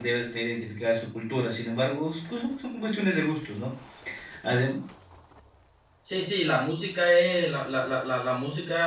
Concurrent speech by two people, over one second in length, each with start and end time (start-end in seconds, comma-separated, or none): none